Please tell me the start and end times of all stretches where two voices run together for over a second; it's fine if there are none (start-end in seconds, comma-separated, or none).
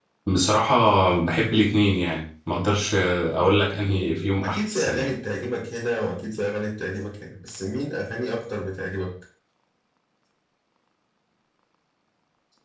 3.9-5.1